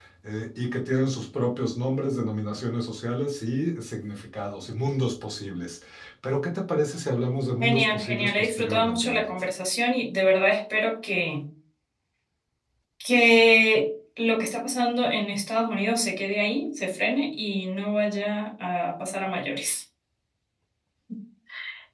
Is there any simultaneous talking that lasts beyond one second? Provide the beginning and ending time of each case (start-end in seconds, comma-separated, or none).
7.6-9.3